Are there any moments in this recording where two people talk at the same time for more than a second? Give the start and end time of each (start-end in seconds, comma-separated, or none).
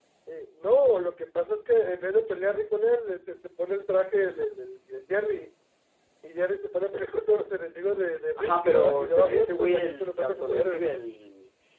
8.4-10.8